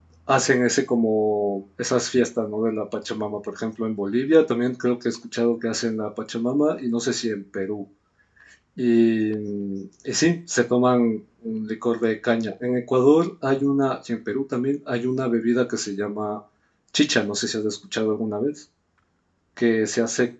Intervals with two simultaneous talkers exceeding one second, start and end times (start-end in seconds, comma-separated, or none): none